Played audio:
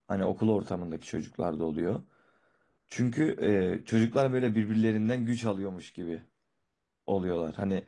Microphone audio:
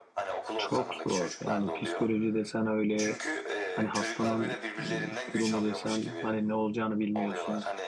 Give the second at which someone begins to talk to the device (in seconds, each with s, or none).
0.6 s